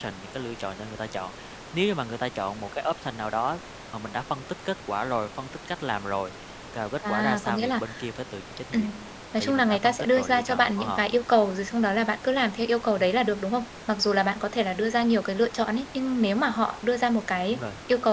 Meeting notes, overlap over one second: present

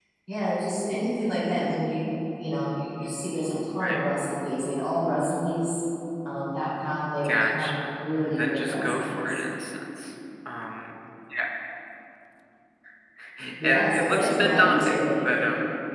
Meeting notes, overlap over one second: present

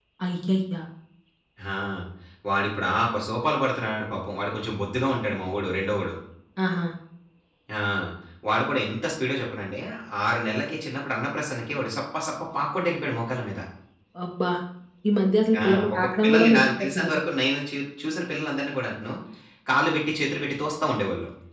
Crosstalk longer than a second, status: present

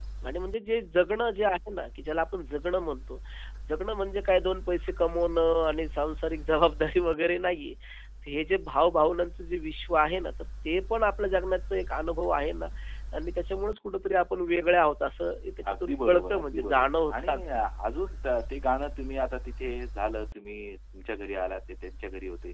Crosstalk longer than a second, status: present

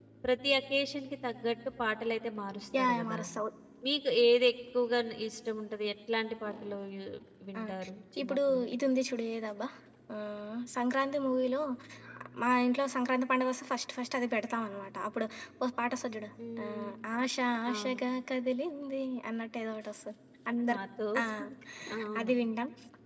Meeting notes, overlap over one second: none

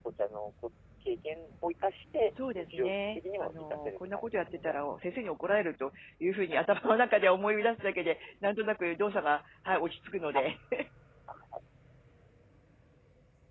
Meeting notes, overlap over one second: present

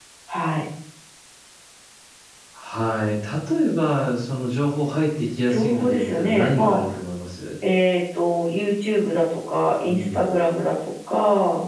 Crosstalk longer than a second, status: present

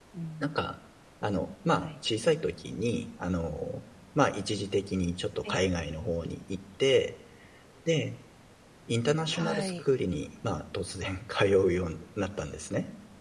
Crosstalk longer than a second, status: none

